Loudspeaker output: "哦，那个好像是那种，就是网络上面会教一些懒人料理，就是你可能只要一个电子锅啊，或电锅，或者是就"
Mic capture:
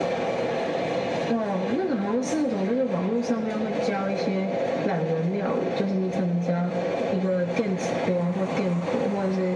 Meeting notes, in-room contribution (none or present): none